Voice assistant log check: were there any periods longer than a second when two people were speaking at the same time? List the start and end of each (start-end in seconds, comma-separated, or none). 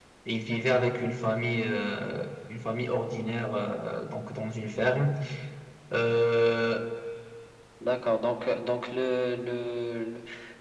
none